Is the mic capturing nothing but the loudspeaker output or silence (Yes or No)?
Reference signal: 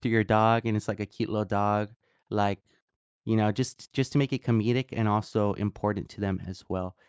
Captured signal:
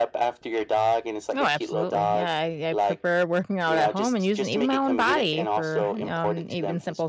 No